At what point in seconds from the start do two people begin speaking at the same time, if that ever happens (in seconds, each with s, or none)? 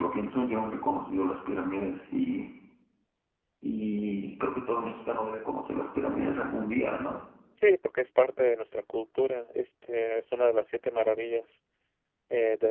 none